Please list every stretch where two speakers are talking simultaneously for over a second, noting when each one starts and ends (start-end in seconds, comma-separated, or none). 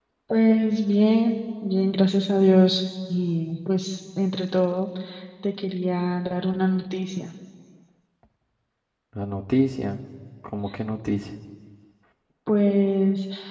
none